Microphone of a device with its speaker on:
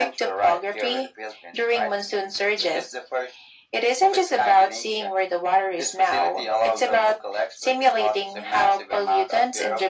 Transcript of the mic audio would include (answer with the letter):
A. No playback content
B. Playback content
B